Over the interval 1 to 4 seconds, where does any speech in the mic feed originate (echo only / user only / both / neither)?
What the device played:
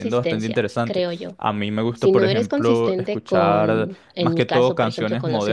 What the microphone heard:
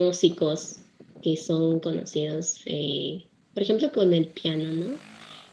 user only